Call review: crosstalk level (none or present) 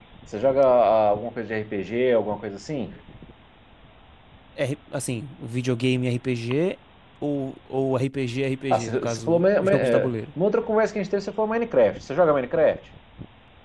present